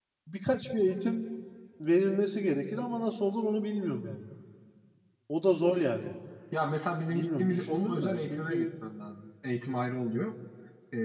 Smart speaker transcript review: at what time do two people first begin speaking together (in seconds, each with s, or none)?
7.1 s